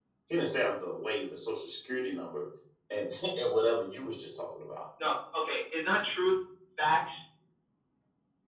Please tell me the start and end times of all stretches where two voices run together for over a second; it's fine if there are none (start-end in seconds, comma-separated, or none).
none